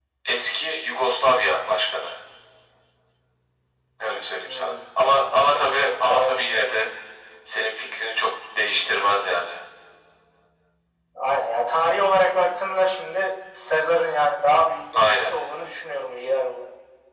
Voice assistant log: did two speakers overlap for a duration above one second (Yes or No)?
Yes